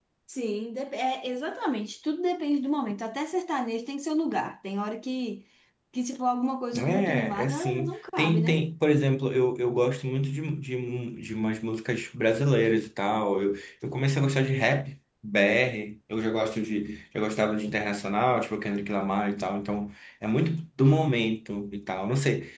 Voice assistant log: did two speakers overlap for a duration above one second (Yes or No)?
Yes